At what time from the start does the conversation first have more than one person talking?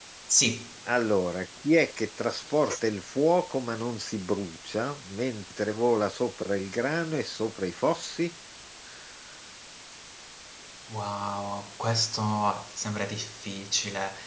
none

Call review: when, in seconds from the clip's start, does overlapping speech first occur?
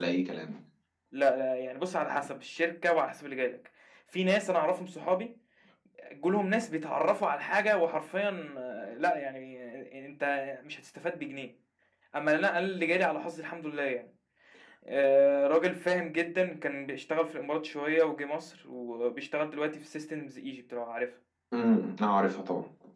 none

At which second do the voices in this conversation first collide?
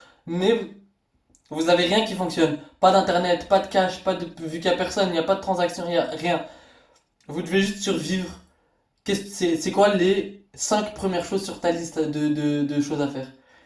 none

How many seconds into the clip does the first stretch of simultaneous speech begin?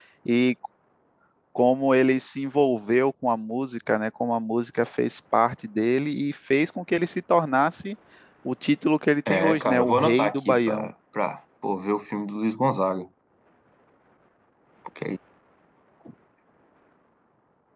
9.3 s

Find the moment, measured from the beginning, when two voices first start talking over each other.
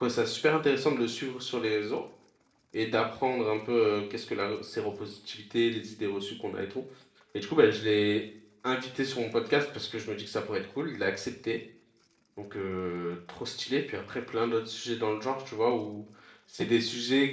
none

